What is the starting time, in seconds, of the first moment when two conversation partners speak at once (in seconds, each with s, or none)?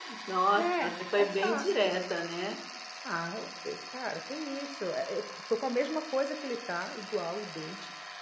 0.6 s